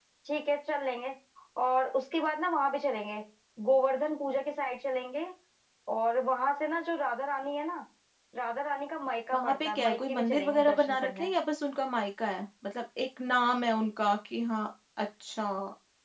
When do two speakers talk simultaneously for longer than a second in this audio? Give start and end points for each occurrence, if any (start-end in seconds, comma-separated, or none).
9.3-11.3